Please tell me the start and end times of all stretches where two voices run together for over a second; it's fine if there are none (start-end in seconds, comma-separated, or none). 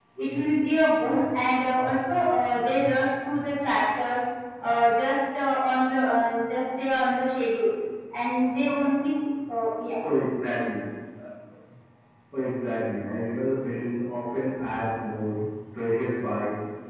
none